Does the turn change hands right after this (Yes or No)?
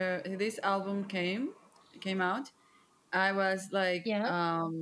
No